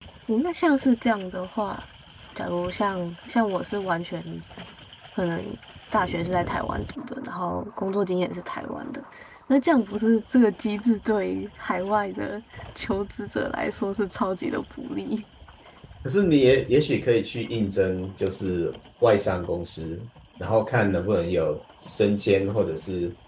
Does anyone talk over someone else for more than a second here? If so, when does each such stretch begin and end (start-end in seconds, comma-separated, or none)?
none